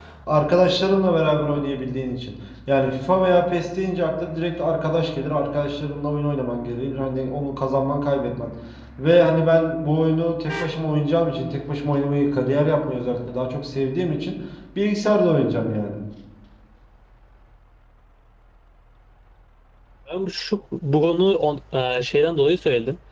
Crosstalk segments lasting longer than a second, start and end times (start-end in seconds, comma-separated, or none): none